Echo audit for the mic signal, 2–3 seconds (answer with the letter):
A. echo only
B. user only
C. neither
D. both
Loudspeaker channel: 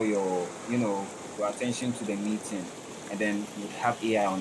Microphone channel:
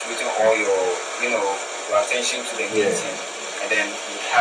D